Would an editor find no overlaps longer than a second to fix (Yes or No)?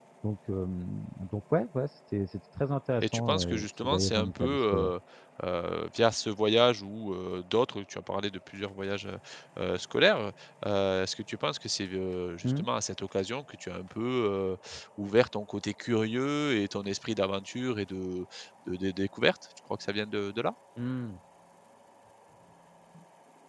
No